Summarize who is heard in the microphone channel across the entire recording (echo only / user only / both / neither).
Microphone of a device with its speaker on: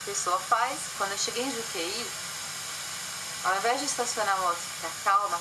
echo only